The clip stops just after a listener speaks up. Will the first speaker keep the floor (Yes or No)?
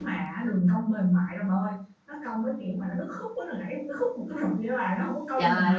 No